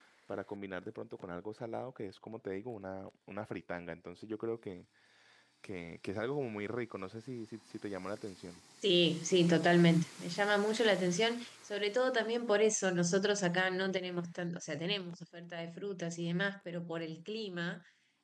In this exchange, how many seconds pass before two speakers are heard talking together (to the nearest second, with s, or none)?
none